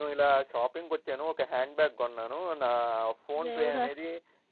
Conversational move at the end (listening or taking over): listening